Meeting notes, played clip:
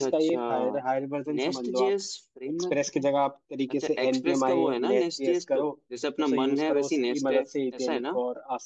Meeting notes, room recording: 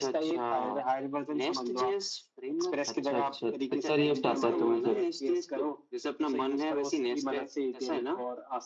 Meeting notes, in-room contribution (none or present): present